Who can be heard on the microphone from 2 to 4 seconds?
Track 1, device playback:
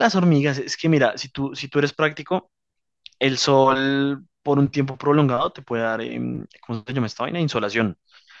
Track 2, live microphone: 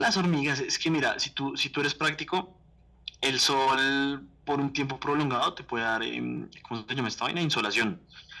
echo only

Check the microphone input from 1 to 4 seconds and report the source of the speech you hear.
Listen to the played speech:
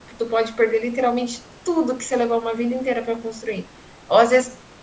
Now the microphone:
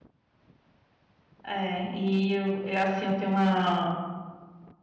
user only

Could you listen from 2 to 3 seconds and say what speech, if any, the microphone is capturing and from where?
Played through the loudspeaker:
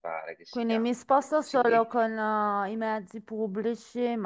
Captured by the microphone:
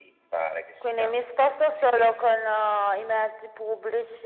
echo only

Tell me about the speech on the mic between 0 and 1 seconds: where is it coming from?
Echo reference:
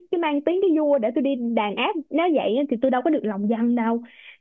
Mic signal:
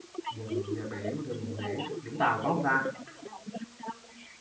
both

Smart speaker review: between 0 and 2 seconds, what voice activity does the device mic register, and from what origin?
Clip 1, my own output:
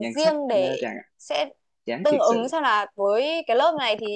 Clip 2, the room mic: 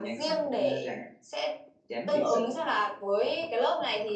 echo only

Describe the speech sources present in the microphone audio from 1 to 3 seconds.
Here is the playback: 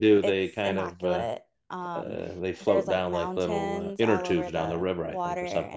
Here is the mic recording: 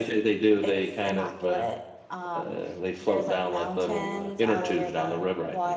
echo only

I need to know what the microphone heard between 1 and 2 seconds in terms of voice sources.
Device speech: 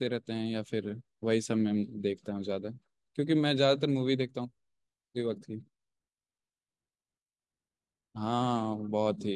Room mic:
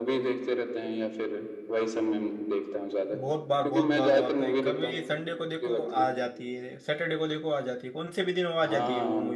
echo only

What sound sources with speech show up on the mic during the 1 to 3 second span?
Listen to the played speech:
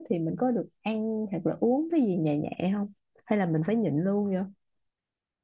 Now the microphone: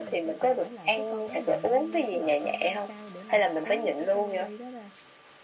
both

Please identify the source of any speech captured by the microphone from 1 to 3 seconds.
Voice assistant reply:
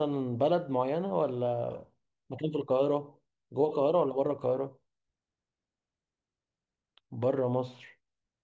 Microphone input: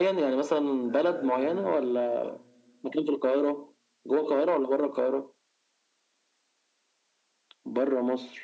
both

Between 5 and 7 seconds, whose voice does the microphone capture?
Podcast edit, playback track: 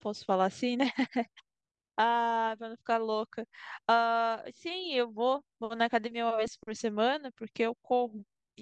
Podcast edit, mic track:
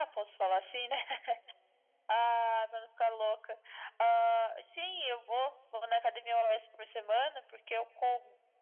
echo only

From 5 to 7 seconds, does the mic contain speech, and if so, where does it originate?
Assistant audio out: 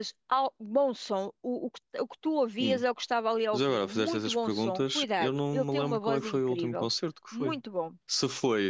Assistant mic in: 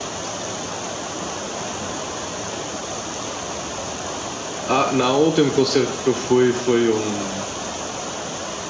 user only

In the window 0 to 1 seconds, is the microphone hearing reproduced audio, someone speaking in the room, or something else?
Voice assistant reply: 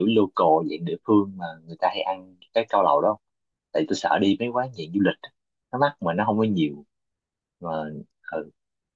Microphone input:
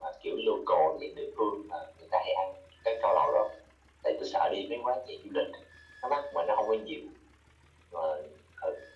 echo only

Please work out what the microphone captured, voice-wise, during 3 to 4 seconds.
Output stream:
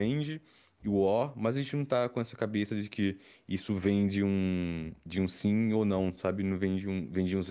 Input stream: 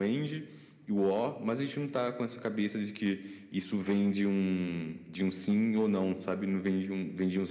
echo only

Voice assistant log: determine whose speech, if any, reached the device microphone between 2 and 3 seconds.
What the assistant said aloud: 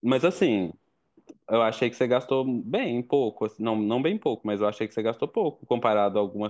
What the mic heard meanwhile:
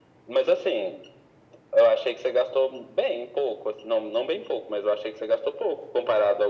echo only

